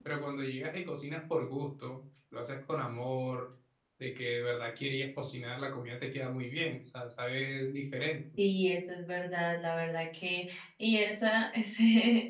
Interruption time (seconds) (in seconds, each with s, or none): none